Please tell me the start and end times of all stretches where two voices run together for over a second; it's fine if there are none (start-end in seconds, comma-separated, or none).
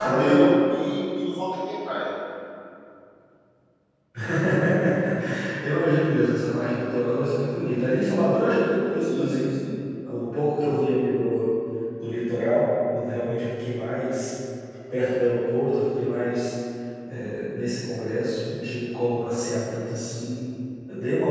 none